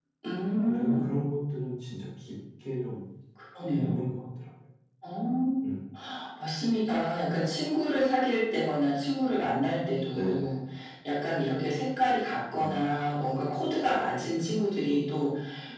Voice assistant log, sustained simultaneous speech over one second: none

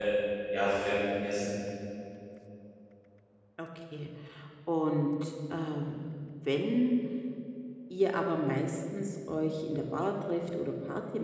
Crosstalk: none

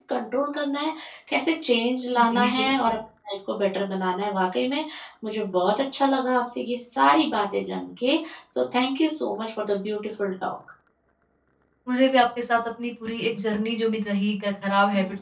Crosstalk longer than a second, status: none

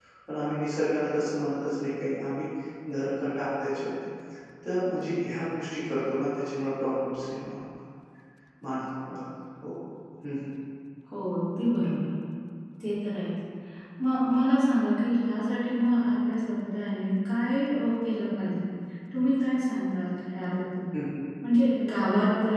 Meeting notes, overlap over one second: none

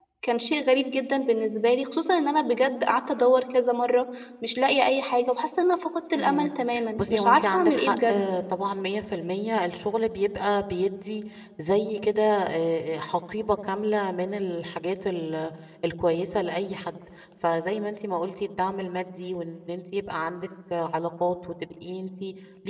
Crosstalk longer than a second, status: present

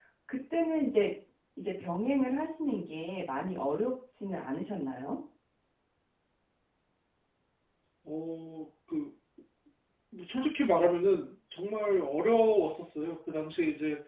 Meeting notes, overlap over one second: none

